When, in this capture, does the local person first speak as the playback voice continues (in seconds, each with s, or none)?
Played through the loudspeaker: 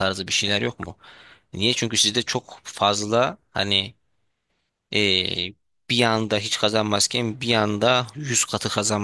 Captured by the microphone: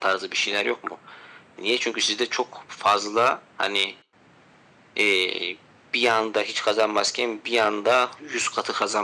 none